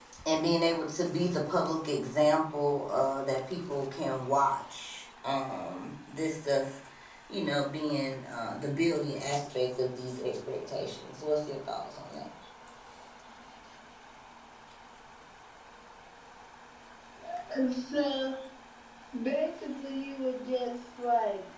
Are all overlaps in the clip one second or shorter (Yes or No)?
Yes